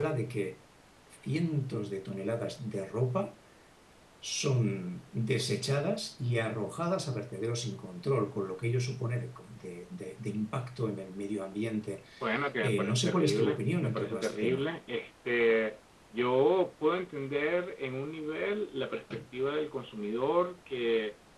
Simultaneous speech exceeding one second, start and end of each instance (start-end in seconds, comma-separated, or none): 12.6-14.6